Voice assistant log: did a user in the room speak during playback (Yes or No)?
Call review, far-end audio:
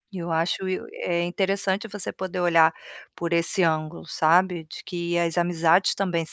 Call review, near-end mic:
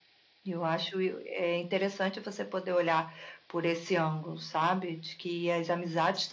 No